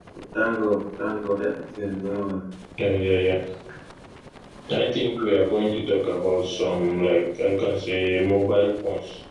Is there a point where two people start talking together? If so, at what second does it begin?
none

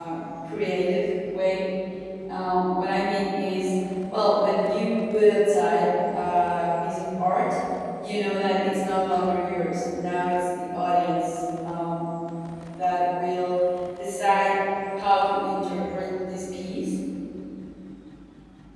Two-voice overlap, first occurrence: none

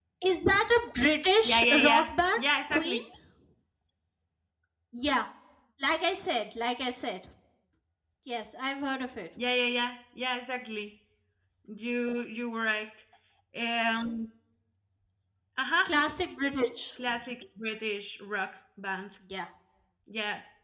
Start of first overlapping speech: 1 s

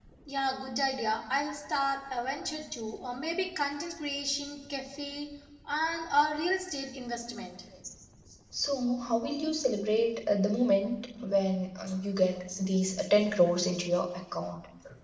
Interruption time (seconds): none

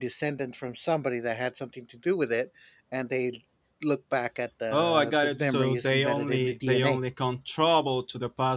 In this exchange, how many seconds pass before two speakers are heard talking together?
5 s

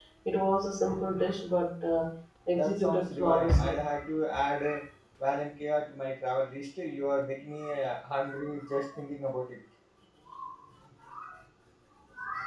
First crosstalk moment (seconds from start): 3 s

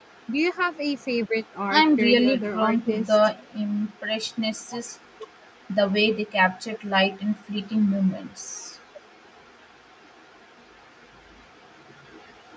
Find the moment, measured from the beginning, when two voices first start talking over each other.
2 s

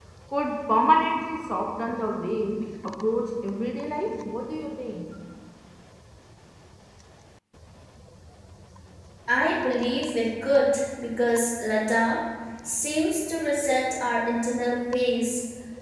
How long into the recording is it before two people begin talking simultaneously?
none

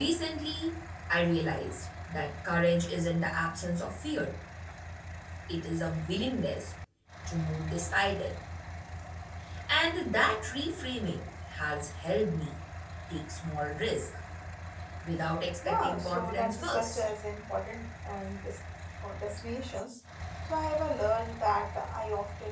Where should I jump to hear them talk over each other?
16 s

